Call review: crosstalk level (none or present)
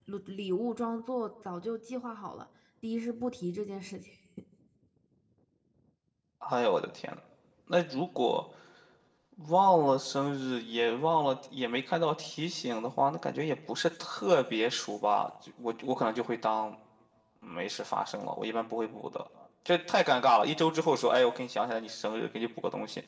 none